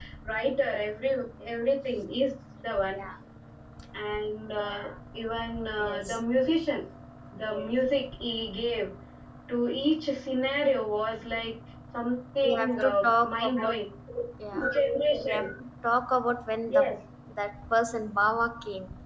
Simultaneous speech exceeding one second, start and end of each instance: 12.4-13.7

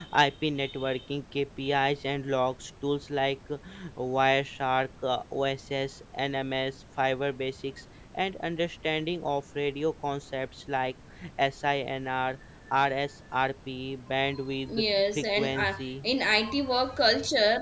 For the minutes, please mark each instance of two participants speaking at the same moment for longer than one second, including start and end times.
14.7-15.9

